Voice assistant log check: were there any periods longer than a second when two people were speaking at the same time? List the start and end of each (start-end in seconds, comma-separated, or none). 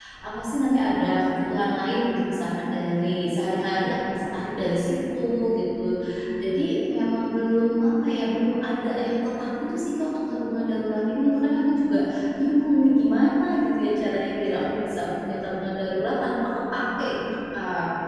none